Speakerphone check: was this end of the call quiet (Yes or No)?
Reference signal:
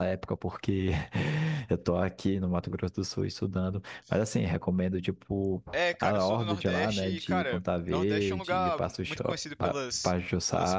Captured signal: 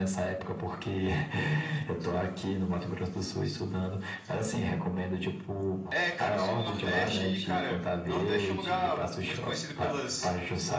Yes